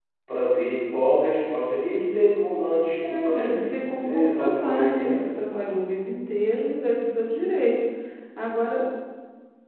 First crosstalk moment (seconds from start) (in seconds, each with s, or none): 2.6 s